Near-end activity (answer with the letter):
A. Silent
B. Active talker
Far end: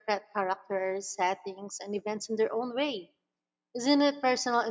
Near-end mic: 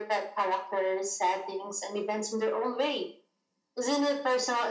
A